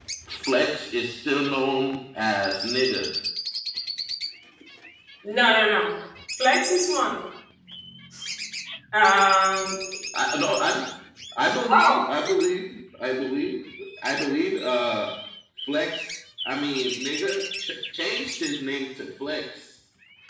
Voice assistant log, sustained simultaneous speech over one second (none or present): none